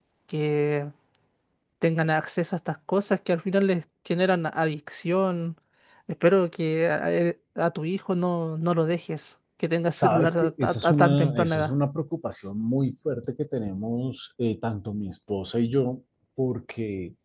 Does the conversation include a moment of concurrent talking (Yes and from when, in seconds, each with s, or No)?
Yes, from 10.0 s